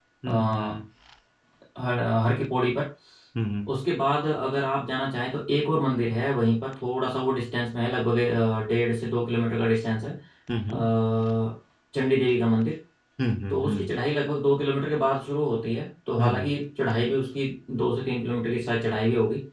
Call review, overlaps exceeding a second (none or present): none